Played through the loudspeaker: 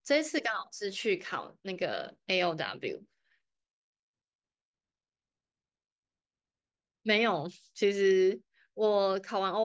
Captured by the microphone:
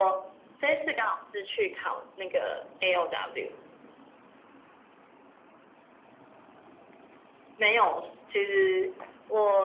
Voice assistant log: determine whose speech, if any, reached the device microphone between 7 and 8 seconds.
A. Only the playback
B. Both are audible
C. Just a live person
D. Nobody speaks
A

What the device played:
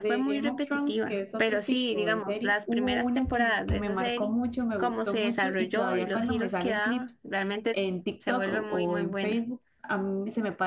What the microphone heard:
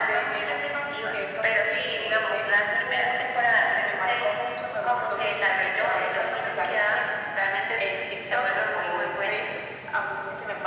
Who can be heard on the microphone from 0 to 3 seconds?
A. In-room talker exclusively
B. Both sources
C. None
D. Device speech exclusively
D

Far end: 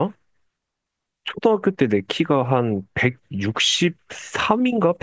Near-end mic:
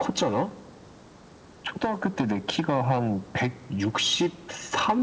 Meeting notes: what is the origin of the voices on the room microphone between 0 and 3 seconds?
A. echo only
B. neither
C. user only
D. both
A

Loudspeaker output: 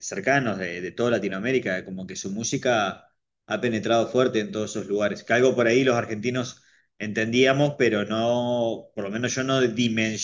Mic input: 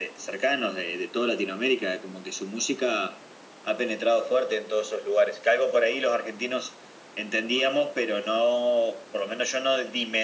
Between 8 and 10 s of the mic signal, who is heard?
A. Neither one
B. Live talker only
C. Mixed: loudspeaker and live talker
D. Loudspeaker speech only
D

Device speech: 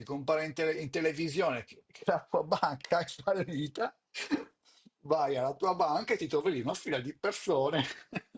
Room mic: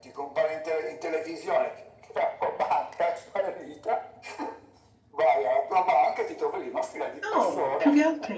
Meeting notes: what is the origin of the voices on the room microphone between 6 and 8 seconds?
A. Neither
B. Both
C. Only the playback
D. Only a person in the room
B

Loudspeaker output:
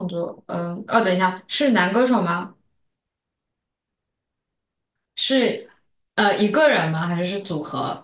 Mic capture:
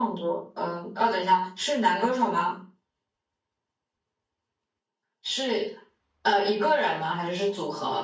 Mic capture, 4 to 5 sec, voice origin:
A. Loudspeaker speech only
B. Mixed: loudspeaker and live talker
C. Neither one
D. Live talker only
C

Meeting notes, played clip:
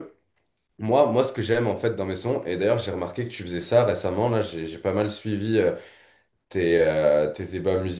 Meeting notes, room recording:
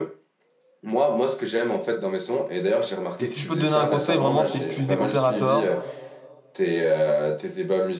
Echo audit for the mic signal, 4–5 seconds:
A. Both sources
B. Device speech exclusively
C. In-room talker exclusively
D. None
A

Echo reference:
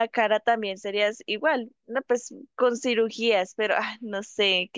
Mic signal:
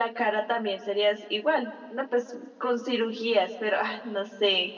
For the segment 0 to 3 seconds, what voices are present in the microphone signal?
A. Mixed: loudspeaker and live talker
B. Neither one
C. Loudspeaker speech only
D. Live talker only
C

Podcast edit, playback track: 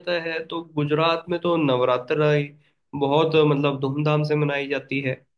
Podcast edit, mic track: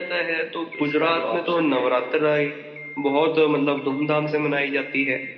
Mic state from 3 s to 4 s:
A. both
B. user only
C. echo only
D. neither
C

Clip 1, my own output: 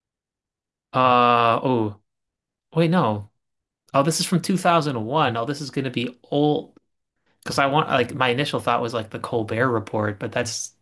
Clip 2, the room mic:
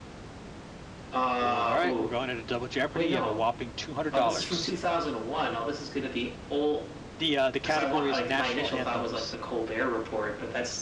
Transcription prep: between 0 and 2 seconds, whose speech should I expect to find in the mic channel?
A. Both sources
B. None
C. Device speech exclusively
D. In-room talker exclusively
A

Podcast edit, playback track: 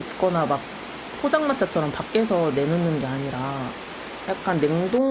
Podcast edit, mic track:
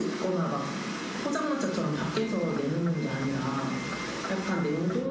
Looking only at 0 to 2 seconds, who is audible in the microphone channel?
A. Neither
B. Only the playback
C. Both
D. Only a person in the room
B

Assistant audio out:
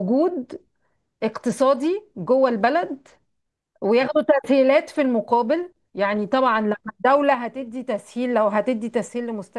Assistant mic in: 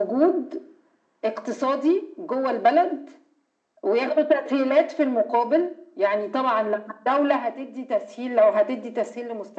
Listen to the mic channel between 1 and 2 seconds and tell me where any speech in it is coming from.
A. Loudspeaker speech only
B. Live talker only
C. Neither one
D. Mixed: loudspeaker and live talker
A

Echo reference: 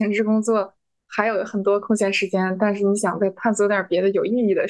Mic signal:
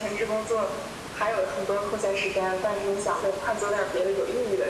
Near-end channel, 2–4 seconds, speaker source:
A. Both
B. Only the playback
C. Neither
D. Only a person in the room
B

